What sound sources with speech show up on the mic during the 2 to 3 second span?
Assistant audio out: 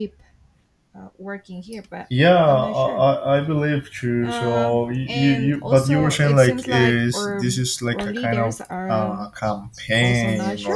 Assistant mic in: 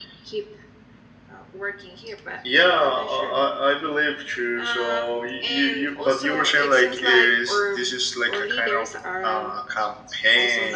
echo only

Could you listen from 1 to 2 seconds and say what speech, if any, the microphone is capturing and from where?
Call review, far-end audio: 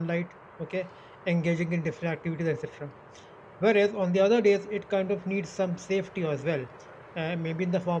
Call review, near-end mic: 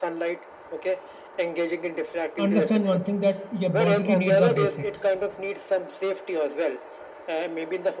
echo only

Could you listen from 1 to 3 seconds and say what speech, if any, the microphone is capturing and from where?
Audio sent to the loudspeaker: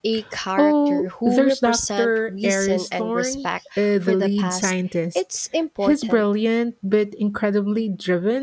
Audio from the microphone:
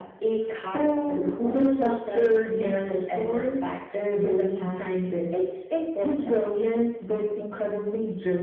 echo only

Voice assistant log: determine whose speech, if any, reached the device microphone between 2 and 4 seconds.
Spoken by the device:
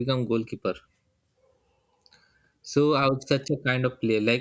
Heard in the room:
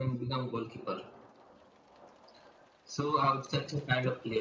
echo only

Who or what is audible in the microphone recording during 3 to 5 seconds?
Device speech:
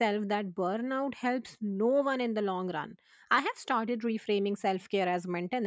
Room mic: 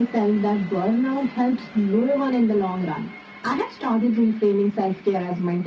echo only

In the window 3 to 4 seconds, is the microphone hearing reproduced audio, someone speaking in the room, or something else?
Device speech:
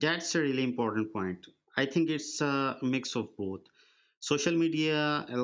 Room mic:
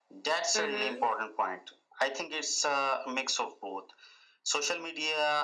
echo only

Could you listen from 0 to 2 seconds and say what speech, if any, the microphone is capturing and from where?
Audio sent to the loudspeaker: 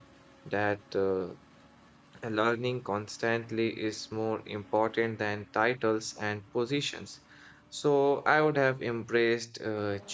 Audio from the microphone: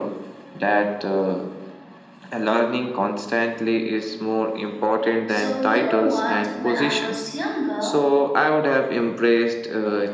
echo only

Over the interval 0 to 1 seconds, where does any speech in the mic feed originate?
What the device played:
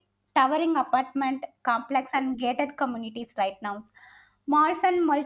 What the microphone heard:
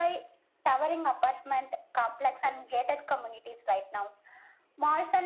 echo only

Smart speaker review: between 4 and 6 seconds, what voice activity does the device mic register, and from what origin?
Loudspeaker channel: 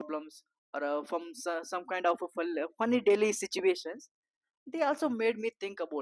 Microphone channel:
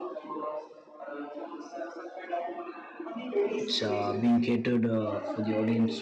both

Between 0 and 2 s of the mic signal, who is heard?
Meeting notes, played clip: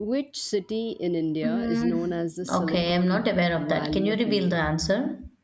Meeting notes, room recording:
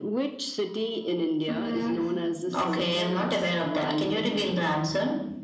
echo only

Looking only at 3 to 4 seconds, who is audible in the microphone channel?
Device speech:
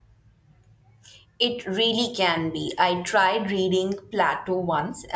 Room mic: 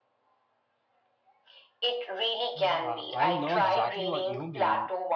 both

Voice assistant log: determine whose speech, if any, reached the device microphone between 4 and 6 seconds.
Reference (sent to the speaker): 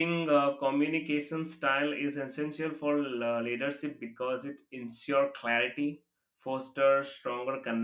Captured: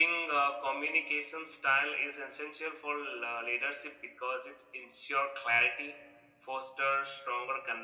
echo only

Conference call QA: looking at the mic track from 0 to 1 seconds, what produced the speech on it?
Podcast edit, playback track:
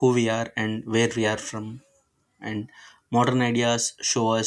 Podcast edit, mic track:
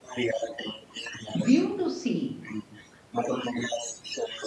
echo only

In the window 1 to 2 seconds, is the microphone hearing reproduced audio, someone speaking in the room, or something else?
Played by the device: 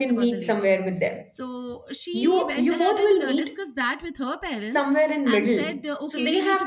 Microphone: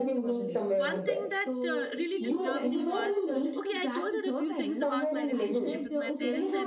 both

